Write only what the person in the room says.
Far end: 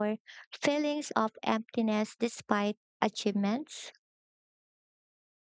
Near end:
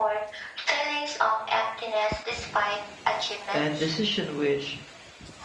and decision which

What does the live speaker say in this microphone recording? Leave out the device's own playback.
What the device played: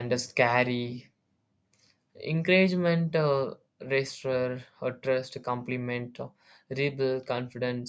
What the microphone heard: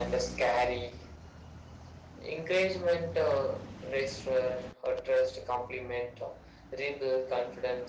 none

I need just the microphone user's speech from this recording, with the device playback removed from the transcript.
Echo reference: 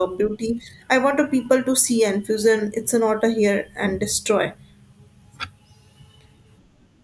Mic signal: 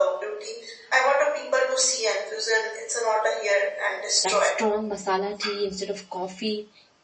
that strong masala tea instead of coffee,

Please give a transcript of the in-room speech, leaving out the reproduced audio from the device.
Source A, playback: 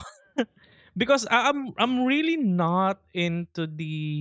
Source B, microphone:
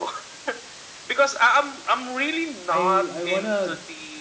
I I wanna

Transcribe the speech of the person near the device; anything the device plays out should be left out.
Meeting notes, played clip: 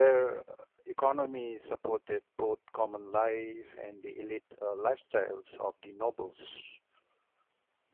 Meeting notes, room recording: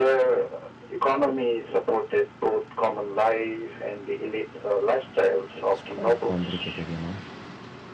it's quite complicated, you know.

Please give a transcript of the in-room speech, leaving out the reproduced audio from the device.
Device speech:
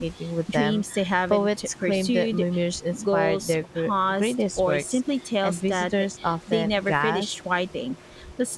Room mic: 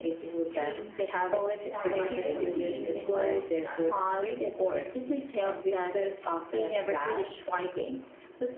formed by drifting luminescent dust.

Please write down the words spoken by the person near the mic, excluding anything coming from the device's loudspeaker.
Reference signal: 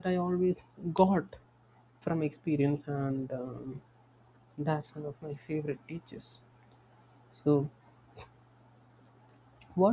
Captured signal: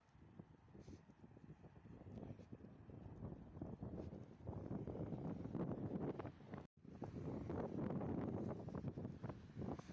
none

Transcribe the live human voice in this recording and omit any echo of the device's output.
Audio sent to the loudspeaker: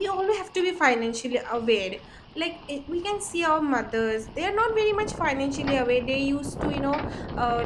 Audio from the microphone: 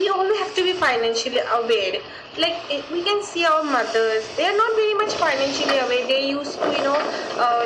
none

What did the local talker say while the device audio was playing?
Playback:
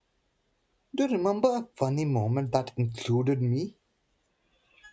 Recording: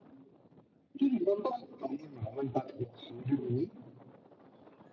none

